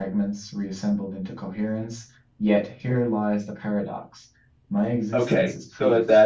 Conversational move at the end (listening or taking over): taking over